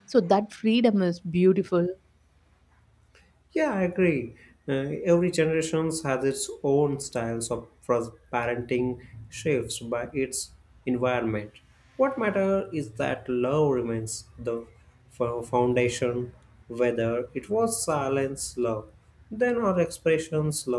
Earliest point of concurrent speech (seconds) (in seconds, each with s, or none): none